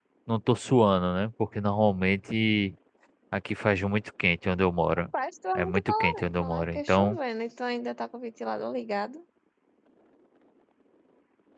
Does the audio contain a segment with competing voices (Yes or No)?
Yes